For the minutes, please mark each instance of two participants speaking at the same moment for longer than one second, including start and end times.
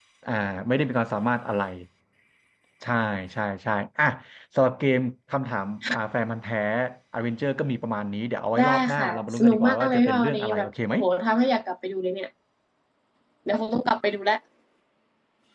8.6-10.9

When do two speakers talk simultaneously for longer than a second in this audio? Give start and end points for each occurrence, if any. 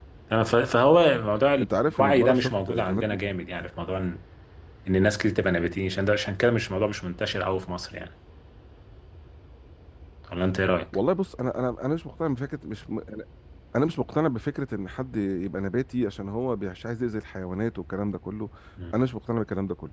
1.6-3.0

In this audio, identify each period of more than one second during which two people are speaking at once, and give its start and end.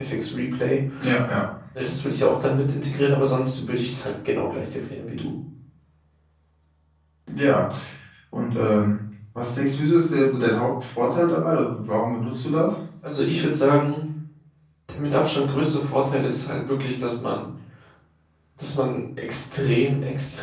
none

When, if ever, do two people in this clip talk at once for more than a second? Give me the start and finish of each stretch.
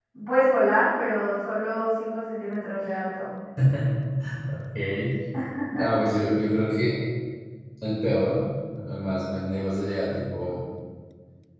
none

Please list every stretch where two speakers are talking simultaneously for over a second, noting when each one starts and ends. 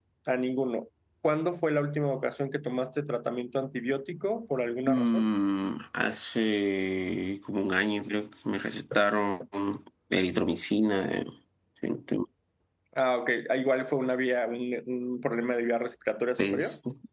none

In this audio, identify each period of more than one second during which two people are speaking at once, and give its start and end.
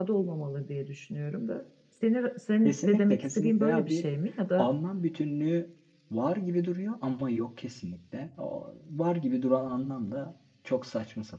2.6-4.0

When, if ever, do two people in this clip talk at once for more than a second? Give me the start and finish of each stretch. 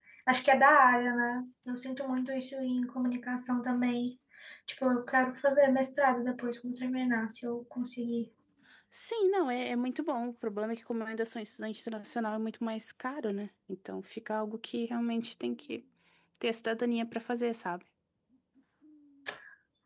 none

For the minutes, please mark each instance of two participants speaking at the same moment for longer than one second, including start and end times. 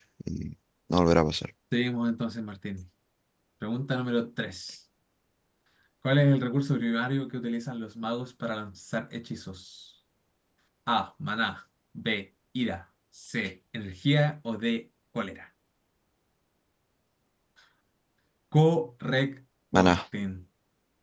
none

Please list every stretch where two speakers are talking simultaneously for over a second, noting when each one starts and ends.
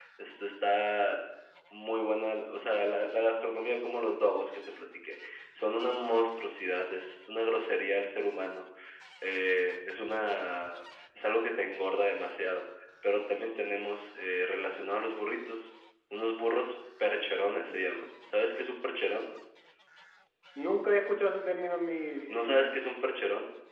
none

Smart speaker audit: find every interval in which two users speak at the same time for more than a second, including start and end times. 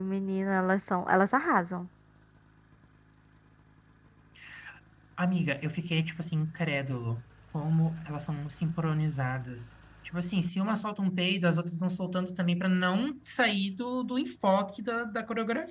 none

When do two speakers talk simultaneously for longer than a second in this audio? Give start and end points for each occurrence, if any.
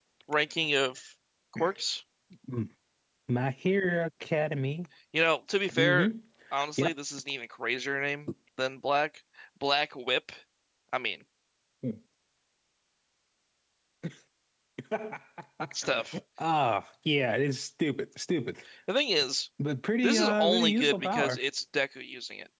20.0-21.4

